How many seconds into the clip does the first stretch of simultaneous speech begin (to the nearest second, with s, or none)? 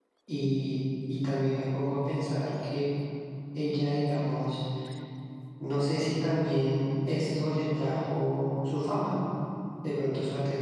none